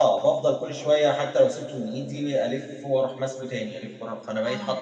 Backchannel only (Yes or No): No